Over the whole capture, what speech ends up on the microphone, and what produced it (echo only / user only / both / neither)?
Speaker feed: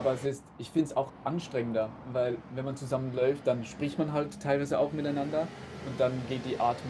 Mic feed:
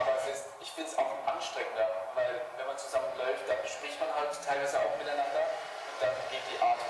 echo only